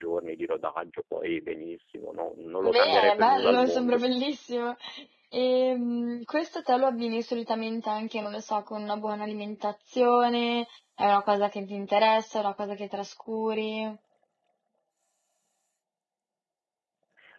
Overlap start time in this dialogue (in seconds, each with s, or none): 2.6 s